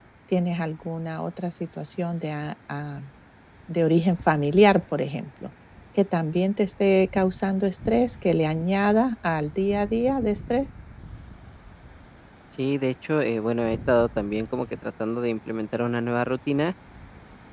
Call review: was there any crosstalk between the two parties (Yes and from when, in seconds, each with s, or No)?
No